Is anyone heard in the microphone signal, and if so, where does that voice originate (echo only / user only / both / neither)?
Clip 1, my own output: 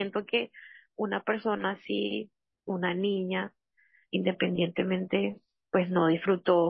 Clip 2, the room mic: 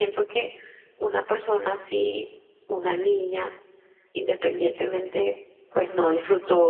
echo only